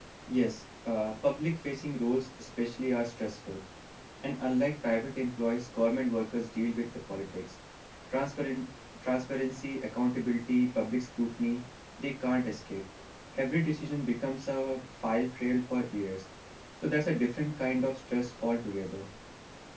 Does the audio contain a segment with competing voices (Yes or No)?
No